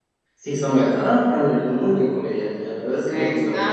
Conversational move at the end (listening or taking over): taking over